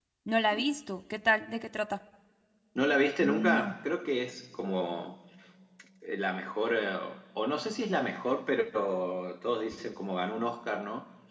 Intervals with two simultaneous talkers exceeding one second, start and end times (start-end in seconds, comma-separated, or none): none